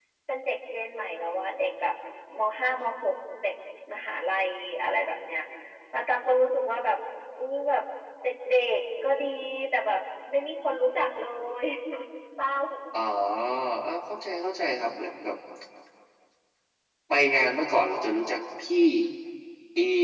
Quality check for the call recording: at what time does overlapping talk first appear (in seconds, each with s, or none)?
none